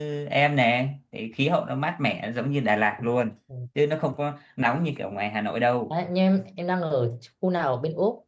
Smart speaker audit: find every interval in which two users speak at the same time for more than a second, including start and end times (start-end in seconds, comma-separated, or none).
none